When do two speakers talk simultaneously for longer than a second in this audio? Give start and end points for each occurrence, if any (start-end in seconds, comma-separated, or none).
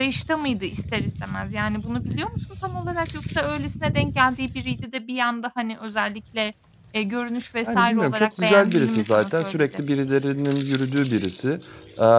7.7-9.8